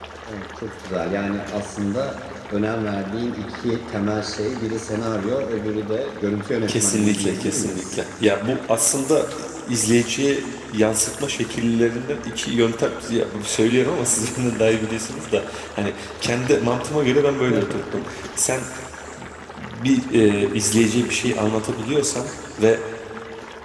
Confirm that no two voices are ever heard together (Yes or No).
No